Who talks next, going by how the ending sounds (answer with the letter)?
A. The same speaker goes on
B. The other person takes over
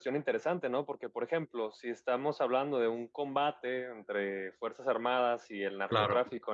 A